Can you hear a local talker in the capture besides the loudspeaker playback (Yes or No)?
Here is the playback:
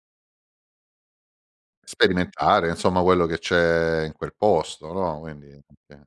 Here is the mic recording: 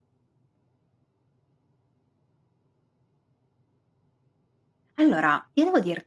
Yes